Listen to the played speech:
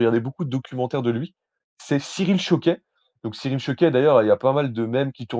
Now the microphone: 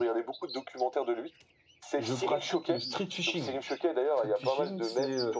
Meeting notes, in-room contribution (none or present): present